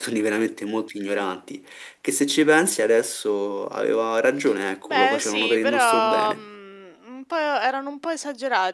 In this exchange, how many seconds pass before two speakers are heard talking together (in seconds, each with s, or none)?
4.8 s